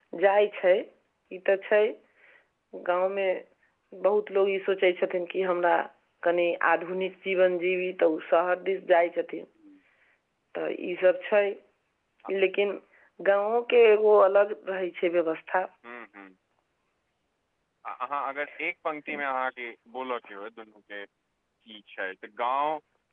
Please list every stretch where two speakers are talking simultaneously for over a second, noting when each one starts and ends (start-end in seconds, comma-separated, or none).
none